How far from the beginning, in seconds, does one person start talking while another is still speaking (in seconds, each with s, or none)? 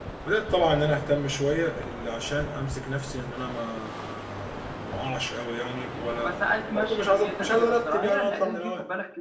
6.2 s